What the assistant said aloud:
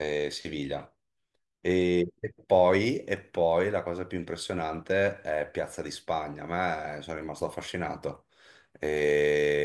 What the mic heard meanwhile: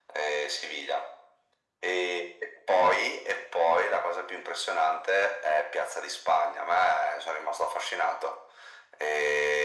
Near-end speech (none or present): none